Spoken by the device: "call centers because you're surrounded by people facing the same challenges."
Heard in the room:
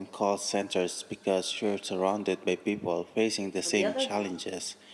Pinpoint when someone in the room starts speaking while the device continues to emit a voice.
4 s

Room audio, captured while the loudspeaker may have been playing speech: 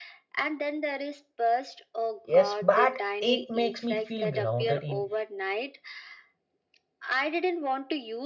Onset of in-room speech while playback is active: 2 s

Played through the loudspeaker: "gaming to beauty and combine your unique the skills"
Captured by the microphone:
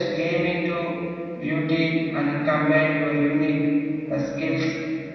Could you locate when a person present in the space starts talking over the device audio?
none

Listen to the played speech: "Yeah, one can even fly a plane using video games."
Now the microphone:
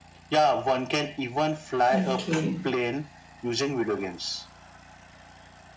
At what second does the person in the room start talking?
2 s

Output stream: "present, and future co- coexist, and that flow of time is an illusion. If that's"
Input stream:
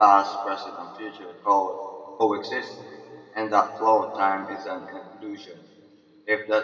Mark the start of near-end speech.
none

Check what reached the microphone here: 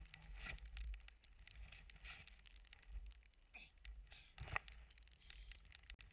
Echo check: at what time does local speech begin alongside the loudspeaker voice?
none

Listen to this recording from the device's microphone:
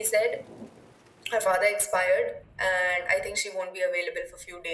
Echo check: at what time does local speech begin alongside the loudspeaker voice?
none

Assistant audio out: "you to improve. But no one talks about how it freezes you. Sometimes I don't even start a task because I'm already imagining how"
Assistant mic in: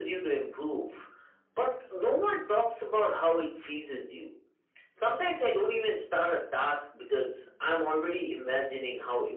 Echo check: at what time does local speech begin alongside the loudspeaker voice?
none

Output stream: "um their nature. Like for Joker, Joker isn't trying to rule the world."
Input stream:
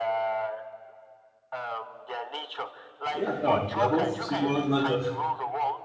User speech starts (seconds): 3 s

